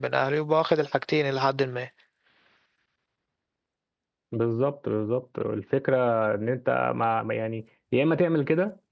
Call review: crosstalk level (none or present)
none